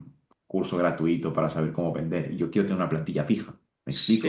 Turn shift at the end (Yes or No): Yes